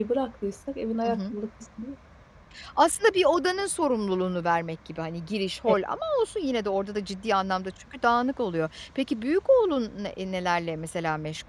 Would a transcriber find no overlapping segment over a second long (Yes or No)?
Yes